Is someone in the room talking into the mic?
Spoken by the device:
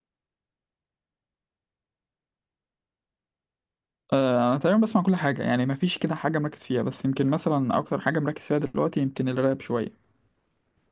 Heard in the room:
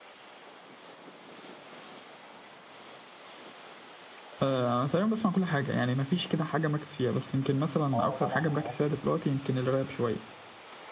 Yes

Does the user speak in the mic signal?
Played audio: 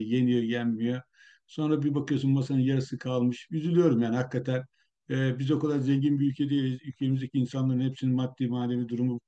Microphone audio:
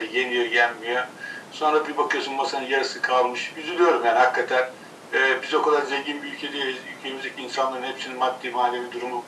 No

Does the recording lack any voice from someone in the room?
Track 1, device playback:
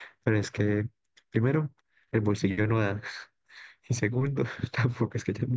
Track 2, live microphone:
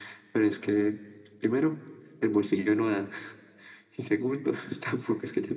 Yes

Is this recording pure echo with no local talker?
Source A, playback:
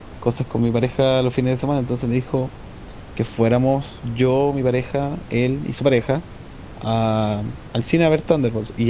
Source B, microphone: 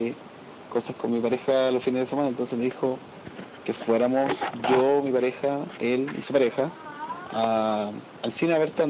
Yes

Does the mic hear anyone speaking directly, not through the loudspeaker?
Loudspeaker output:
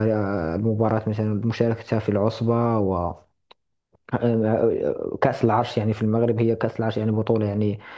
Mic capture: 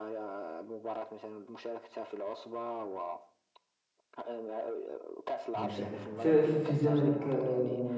Yes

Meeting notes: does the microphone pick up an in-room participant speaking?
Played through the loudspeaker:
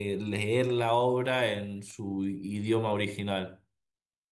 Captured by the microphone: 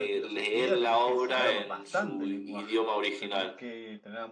Yes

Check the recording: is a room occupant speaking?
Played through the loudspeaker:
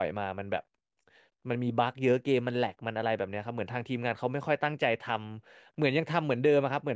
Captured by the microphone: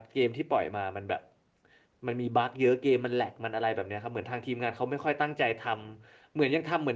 No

